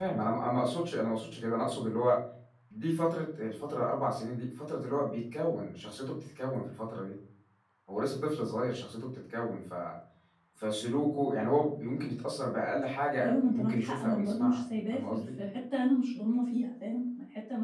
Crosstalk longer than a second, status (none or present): present